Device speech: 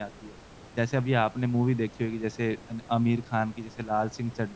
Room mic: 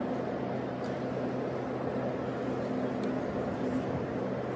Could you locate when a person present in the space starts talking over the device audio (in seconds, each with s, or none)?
none